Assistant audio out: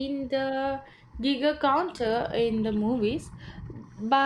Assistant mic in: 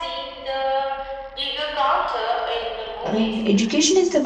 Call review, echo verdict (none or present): present